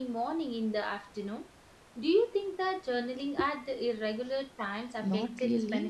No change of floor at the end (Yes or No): No